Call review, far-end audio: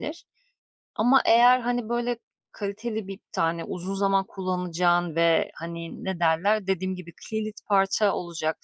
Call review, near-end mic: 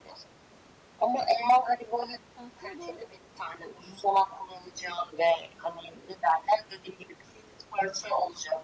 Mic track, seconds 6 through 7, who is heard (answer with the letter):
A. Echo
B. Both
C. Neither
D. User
A